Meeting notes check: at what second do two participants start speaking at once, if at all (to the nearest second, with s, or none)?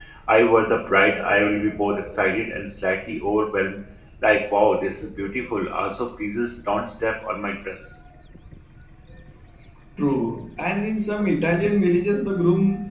none